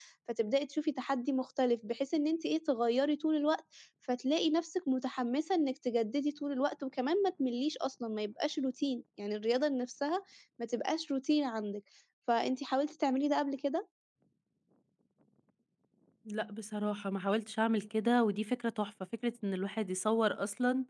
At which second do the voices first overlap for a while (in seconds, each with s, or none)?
none